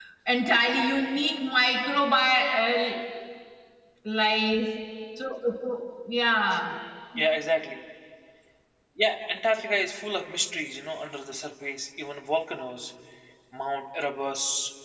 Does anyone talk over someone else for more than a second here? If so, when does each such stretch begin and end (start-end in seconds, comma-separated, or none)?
none